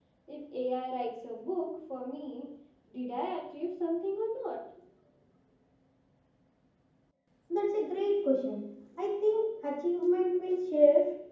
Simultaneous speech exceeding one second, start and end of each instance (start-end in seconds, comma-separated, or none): none